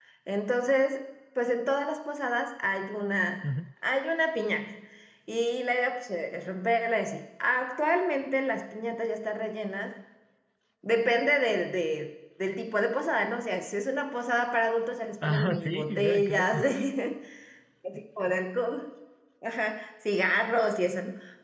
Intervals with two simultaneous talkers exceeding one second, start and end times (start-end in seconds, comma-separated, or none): 15.2-16.6